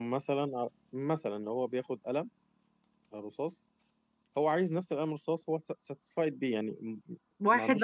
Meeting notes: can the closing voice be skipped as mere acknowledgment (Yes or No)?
No